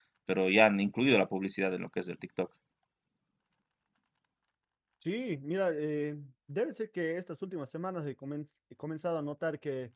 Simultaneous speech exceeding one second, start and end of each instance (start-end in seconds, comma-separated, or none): none